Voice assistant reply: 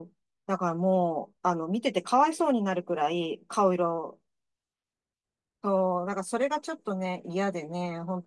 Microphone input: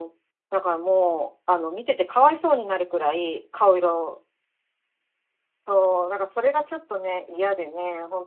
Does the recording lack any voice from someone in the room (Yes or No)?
Yes